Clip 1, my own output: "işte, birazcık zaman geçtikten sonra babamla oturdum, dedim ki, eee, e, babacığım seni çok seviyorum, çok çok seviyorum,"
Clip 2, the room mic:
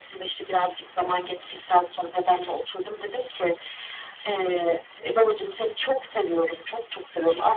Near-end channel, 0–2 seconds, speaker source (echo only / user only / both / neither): echo only